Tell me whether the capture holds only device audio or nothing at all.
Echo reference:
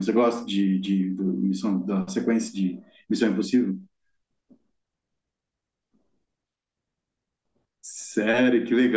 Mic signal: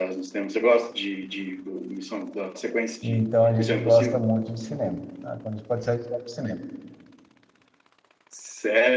No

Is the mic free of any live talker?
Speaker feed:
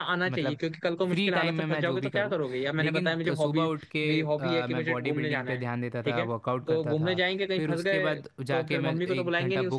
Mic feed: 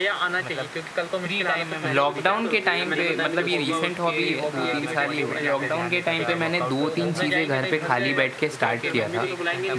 No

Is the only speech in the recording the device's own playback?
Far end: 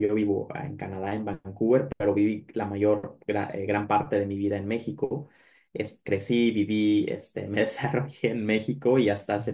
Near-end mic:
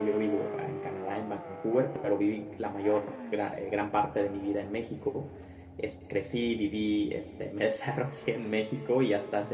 Yes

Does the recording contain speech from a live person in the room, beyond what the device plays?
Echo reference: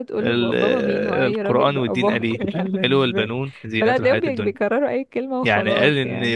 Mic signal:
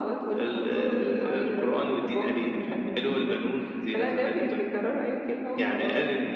No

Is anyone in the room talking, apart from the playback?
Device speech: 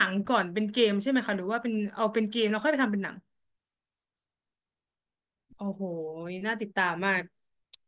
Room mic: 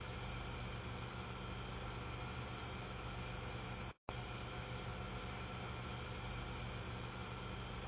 No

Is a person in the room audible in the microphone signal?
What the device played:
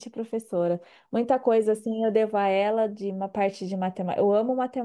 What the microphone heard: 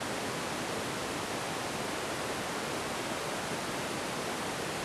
No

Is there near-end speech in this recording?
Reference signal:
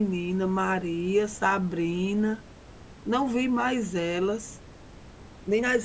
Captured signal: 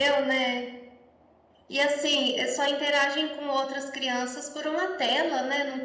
Yes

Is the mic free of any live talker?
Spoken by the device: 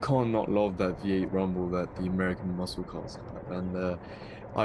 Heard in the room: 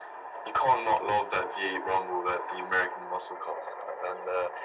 Yes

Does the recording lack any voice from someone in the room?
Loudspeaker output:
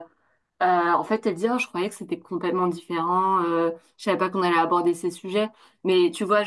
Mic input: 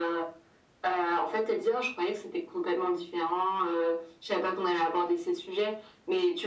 Yes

